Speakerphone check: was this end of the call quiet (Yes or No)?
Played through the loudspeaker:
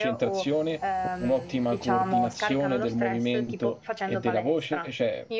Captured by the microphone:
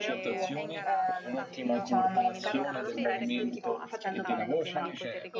No